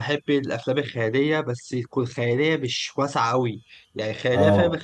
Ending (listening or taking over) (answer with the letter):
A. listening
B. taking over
A